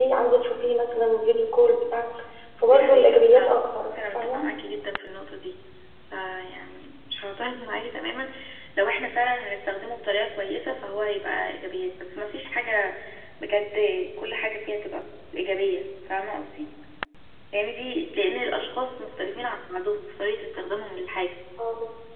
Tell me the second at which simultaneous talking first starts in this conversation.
3 s

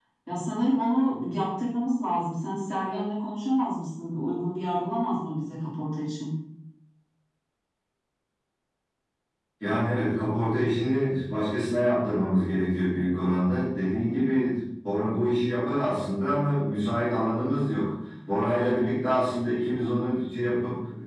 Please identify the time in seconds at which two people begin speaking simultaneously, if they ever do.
none

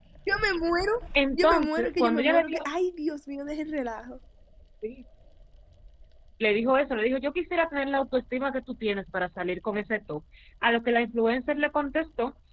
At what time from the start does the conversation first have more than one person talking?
1 s

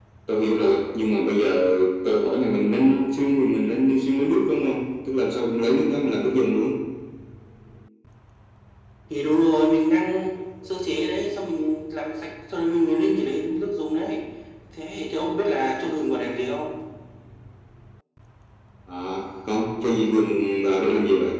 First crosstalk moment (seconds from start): none

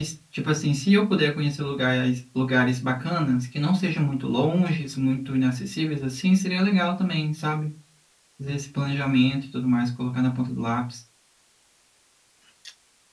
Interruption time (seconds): none

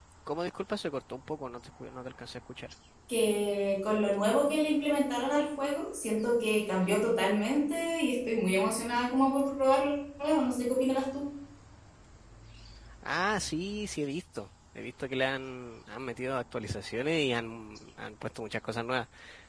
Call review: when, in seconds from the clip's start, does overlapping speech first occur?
none

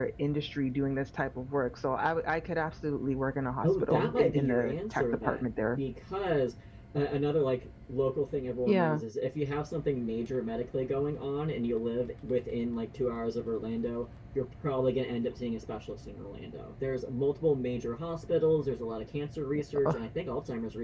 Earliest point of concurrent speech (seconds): 4 s

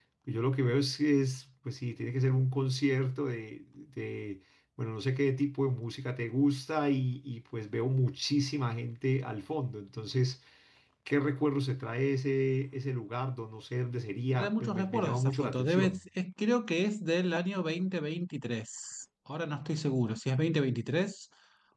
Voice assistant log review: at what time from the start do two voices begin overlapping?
14 s

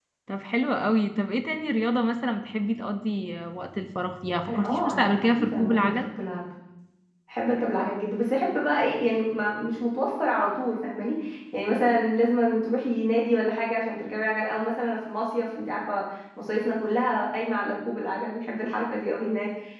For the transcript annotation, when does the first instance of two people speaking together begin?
4 s

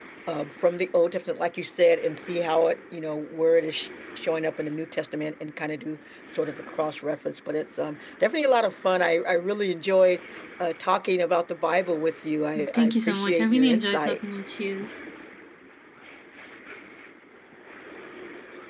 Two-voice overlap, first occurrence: 13 s

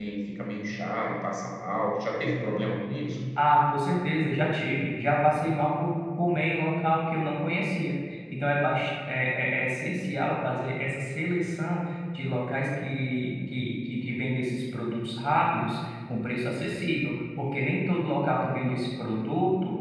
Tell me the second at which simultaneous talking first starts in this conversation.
none

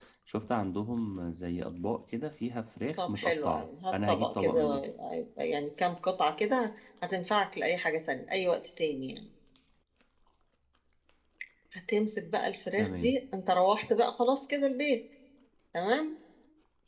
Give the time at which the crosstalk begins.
3 s

